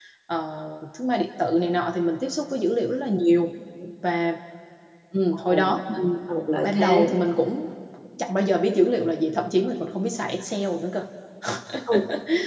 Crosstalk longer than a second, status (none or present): none